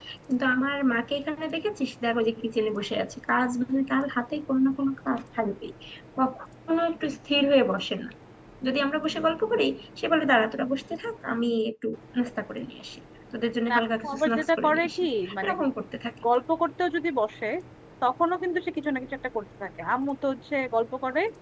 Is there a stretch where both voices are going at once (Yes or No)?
Yes